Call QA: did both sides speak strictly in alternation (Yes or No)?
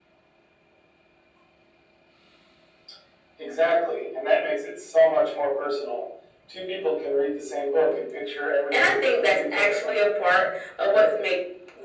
No